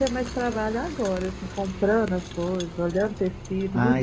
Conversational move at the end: taking over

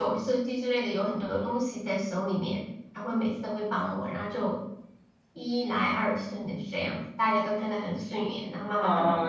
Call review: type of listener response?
taking over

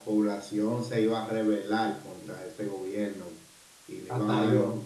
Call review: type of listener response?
listening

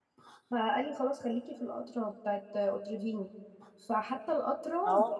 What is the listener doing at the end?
listening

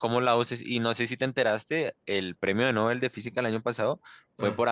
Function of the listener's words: listening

